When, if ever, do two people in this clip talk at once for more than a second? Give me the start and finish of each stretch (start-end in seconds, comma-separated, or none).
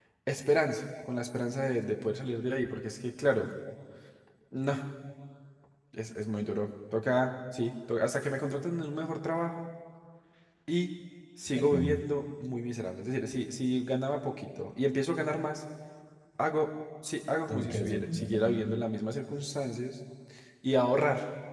17.5-18.8